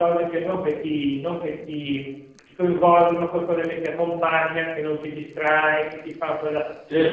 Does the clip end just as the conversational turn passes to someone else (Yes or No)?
No